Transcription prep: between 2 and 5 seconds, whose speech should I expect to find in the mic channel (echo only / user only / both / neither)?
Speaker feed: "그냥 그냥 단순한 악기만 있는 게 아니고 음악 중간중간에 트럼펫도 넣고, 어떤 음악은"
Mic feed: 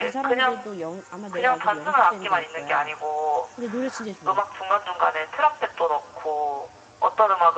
both